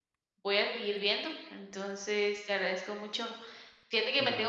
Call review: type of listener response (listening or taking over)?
listening